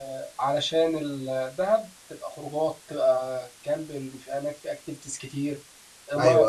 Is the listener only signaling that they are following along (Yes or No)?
Yes